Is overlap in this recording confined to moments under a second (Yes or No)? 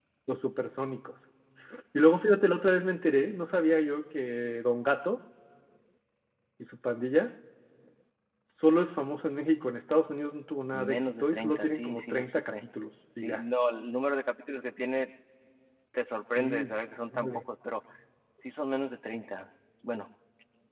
No